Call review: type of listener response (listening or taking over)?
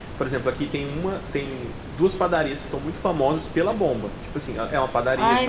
listening